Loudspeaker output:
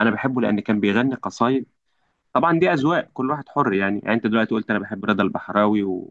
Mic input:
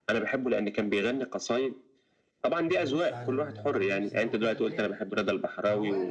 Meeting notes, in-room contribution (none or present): present